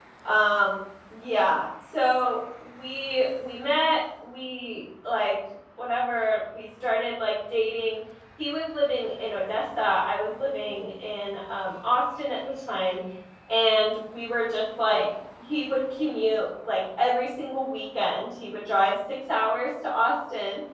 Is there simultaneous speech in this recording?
No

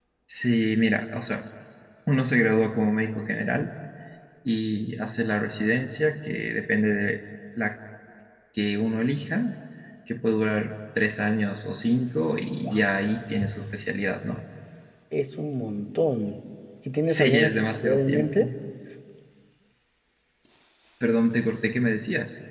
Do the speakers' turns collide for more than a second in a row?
Yes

